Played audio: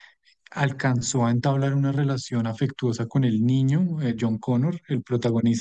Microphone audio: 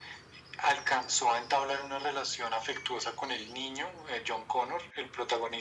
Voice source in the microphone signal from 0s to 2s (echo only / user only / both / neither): echo only